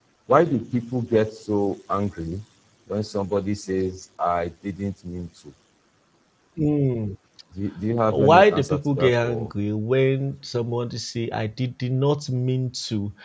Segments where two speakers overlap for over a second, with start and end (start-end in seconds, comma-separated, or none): 8.1-9.5